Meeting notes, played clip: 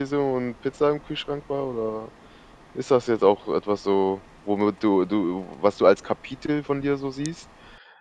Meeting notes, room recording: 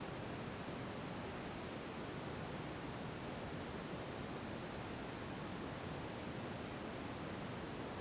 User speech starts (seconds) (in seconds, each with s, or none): none